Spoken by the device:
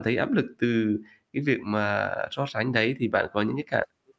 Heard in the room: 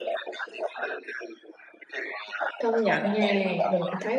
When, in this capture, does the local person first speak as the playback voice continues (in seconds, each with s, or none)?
2.6 s